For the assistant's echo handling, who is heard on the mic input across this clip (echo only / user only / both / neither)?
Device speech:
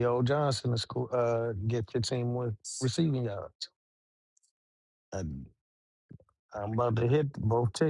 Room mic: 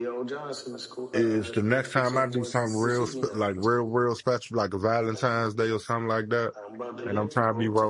both